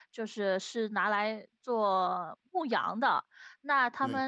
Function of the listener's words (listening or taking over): listening